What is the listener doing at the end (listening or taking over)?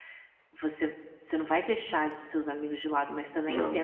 listening